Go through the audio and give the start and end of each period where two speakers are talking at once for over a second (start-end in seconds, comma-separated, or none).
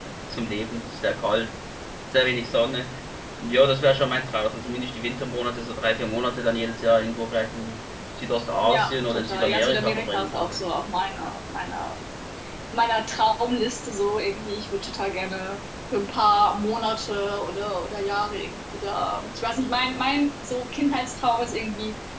8.6-10.6